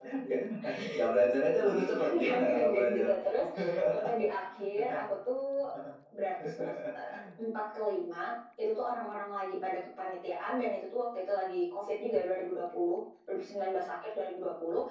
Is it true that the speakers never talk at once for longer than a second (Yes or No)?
No